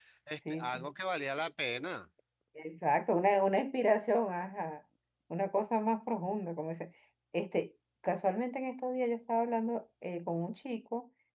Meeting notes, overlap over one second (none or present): none